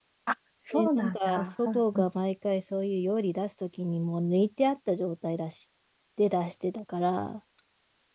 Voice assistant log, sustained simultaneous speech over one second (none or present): present